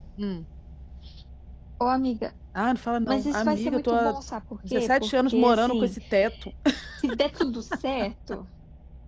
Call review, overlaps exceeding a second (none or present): present